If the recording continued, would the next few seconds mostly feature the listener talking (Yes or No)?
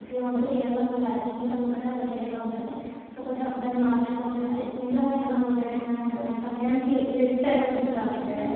Yes